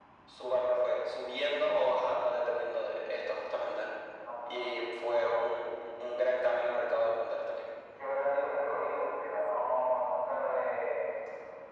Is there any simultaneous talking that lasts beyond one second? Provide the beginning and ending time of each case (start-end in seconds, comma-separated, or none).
none